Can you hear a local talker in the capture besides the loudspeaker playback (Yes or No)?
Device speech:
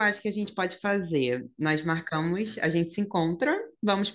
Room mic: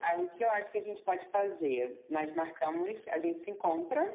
No